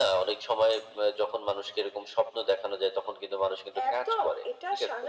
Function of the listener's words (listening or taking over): taking over